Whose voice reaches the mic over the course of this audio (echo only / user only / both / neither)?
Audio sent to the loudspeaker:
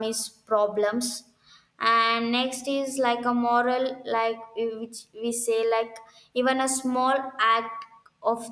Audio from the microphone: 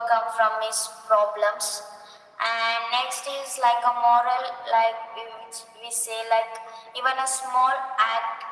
echo only